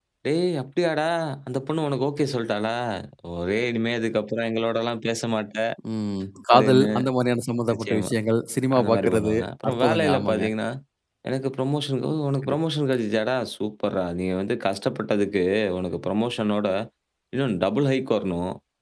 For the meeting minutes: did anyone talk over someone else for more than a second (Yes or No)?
Yes